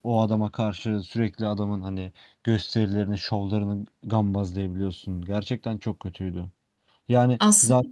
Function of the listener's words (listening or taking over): listening